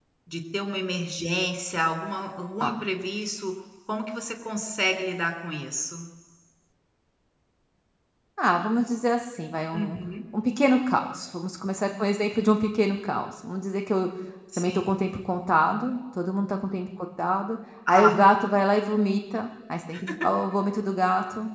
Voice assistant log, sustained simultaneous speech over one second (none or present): none